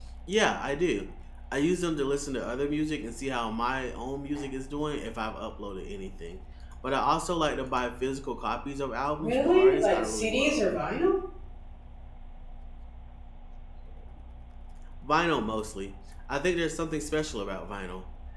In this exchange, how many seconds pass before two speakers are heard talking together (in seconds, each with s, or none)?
9.2 s